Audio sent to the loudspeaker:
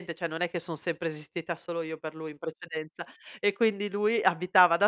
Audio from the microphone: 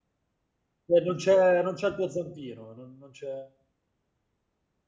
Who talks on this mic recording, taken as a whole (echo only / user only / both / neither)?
user only